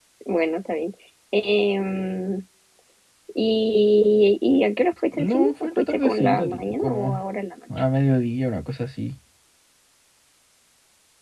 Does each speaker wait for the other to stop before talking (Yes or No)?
No